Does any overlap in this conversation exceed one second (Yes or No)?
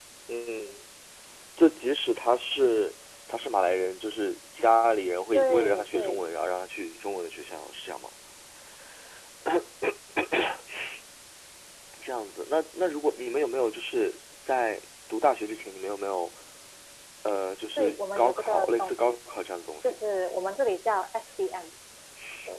Yes